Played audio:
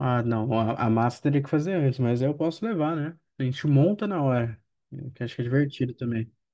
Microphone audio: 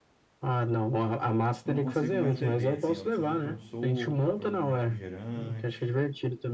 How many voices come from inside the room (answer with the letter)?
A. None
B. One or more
B